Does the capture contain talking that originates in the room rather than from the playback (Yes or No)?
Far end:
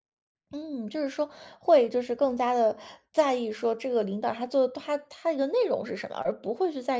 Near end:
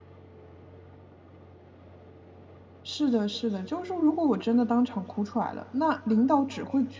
Yes